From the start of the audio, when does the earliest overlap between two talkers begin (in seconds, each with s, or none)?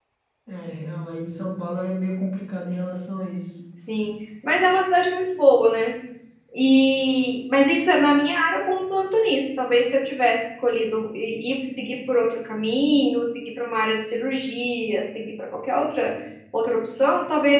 none